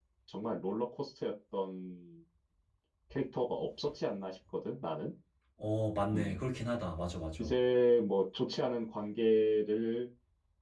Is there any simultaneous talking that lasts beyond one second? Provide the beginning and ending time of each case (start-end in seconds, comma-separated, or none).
none